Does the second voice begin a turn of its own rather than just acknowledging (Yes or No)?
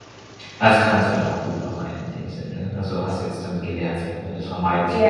Yes